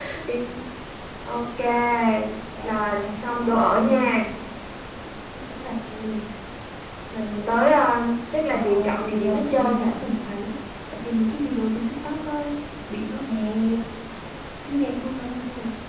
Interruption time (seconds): 2.6 s

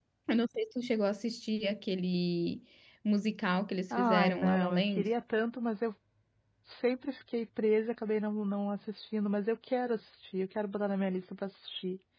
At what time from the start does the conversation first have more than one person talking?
3.9 s

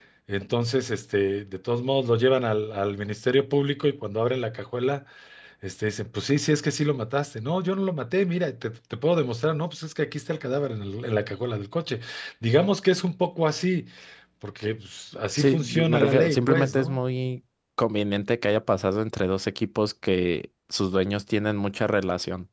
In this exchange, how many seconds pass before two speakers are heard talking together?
15.4 s

